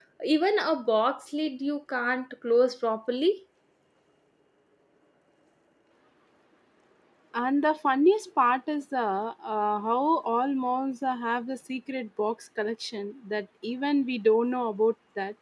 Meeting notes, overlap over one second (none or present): none